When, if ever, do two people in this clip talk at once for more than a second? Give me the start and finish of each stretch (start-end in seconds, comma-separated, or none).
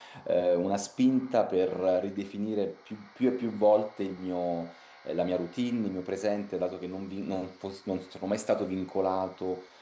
none